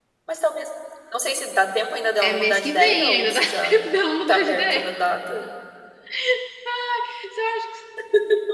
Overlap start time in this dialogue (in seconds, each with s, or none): 2.2 s